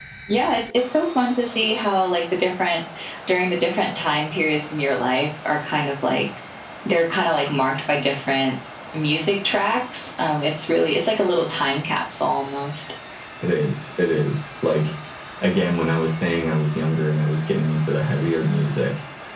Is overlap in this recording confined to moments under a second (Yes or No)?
Yes